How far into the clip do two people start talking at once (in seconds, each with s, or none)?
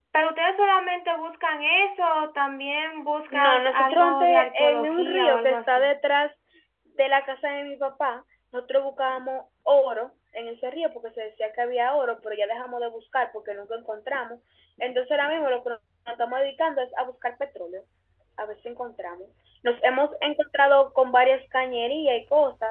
3.3 s